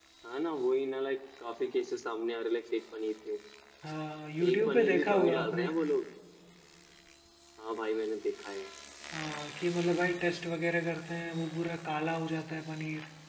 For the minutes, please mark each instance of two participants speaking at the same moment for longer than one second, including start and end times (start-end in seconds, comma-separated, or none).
4.4-5.7